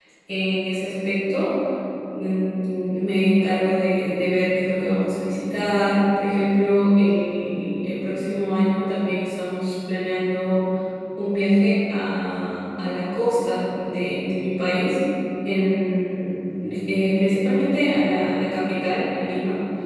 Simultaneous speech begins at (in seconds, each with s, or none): none